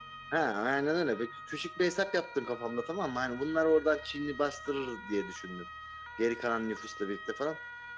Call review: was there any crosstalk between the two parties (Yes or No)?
No